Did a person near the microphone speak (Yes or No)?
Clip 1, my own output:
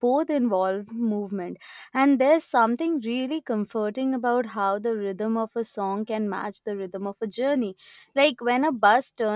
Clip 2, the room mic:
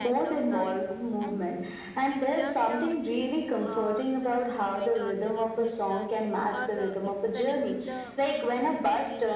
Yes